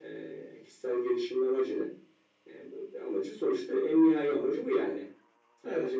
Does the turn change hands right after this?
No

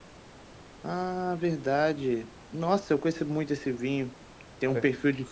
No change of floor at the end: Yes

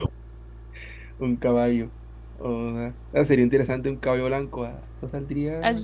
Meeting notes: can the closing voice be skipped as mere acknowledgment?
No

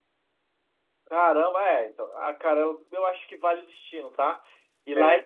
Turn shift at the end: No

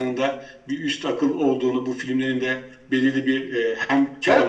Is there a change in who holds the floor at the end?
Yes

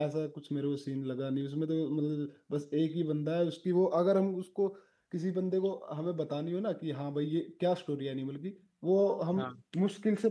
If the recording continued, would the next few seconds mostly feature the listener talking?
No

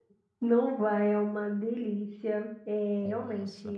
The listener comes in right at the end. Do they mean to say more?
No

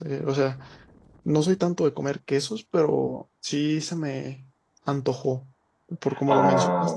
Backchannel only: No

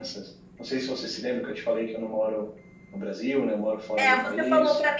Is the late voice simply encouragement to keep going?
No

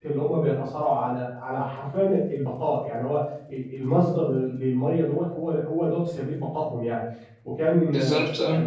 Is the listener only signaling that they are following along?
Yes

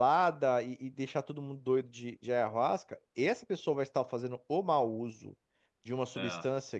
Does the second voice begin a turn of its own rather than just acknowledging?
No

